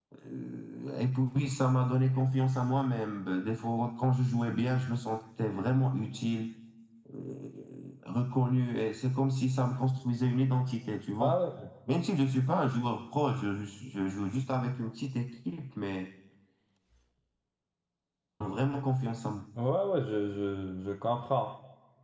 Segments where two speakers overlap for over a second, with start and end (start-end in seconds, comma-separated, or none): none